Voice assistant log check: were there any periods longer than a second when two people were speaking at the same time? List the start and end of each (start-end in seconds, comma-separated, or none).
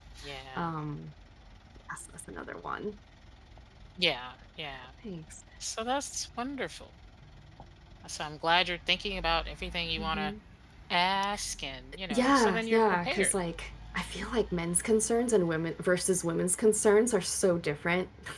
12.1-13.3